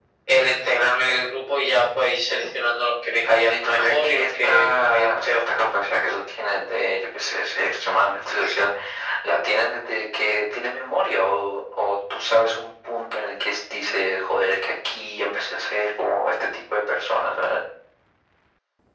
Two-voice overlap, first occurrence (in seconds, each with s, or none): 3.4 s